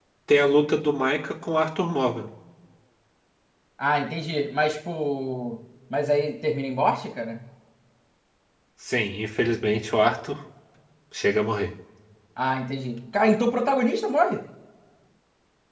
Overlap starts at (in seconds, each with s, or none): none